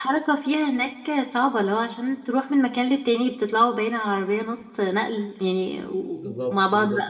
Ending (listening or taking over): taking over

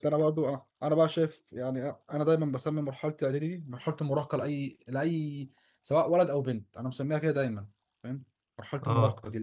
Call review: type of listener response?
taking over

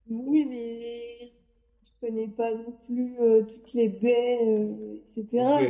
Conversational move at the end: taking over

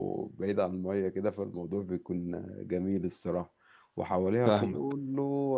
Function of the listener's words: listening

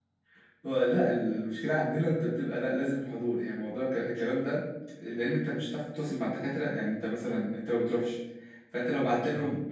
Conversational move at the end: listening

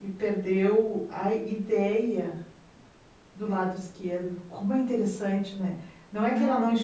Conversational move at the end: listening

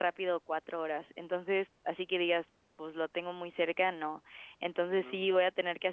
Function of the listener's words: listening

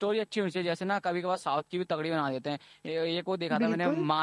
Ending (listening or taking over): listening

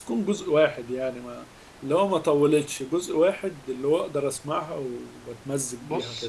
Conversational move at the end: taking over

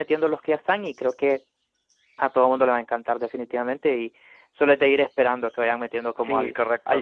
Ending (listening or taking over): taking over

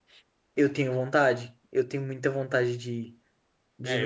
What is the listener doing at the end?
taking over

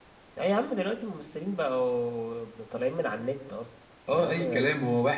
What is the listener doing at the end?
taking over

